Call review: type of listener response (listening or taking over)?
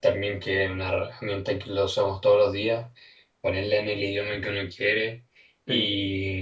listening